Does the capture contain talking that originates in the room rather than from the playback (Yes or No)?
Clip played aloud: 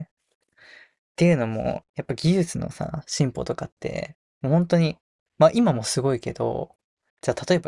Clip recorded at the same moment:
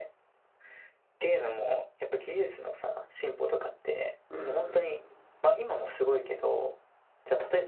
Yes